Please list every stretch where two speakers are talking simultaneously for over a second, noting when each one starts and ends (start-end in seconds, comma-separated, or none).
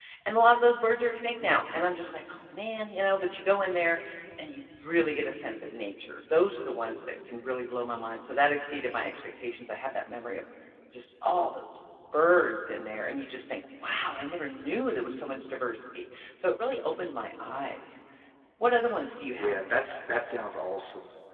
none